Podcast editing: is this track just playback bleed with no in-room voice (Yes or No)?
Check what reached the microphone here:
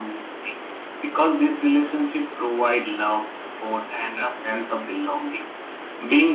Yes